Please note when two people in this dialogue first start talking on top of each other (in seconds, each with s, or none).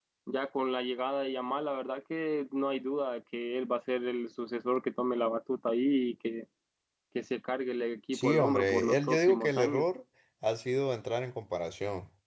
8.1 s